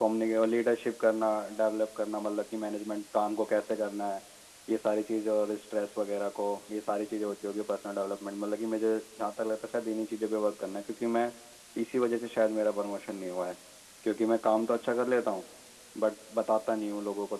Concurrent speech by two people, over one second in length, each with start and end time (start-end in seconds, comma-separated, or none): none